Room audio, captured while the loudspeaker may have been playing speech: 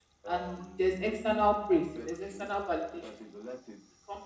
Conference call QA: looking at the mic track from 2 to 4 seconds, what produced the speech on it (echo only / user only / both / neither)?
both